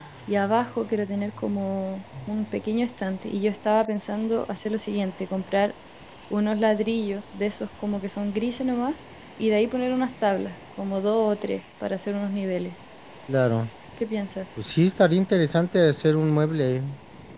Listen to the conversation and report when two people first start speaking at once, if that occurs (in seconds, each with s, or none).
none